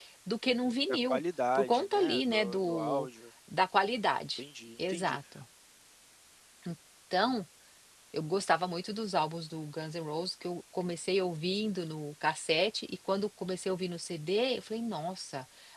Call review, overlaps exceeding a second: present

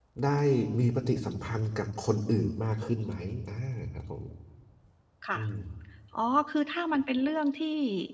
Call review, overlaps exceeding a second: none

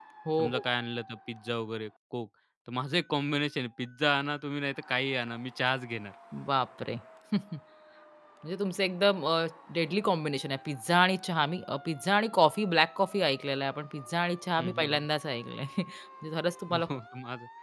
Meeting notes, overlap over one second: none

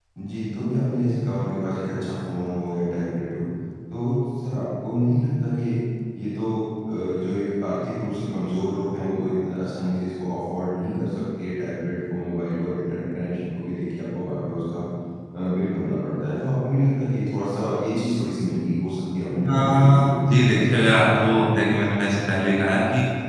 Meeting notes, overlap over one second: present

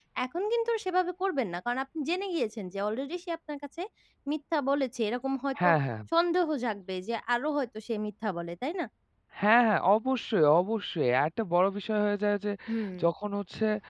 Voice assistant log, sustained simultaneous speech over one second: none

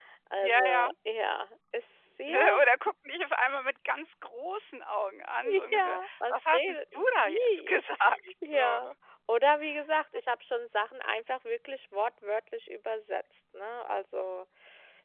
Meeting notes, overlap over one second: present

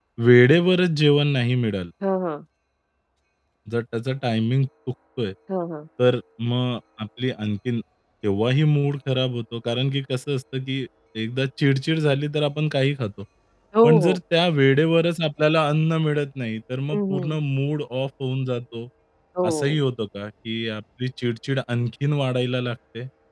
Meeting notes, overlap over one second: none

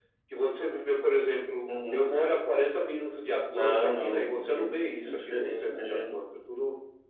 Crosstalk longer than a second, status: present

